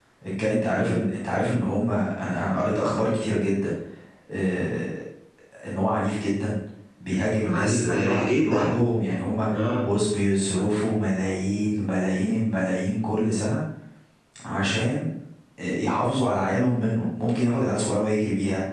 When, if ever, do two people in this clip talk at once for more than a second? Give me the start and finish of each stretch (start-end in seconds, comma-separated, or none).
7.5-8.7